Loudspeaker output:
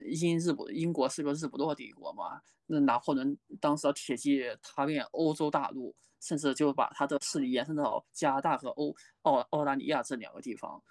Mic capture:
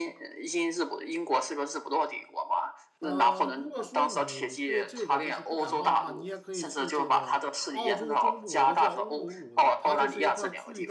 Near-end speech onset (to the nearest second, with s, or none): 3 s